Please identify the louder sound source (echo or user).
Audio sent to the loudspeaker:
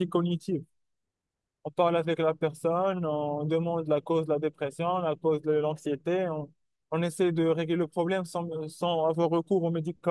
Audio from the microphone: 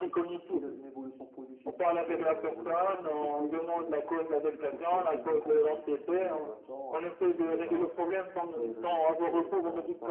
echo